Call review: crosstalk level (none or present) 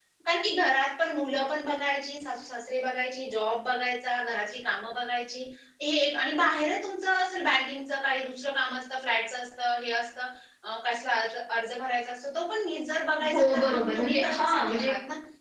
present